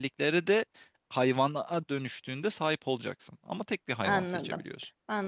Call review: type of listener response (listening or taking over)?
taking over